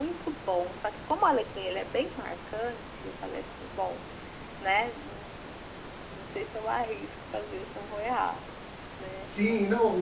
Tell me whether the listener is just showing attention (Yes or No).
No